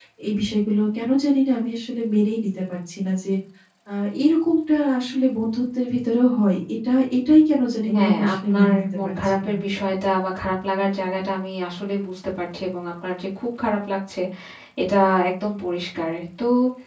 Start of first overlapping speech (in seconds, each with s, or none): 7.8 s